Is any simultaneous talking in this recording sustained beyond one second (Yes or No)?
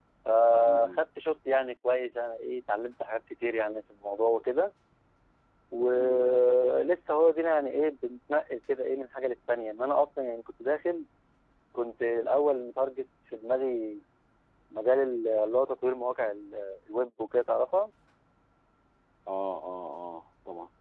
No